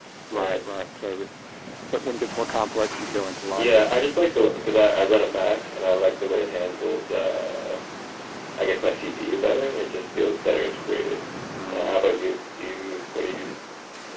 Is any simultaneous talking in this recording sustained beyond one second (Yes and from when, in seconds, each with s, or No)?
No